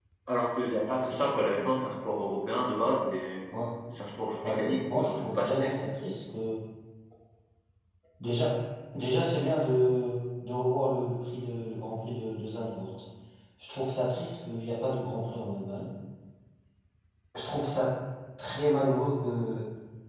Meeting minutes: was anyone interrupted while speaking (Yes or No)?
Yes